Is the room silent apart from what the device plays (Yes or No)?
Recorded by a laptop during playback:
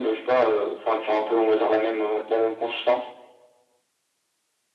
Yes